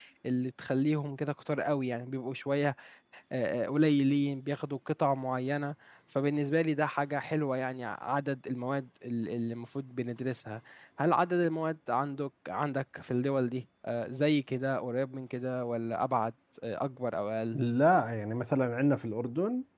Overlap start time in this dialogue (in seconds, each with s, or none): none